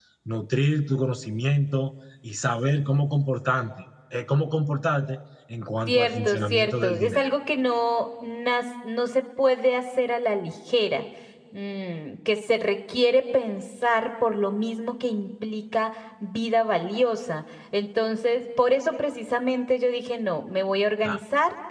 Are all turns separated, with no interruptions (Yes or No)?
No